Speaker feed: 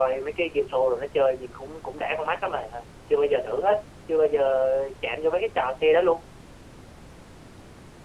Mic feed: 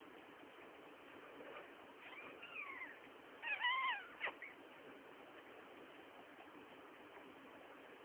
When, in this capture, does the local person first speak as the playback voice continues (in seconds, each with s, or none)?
none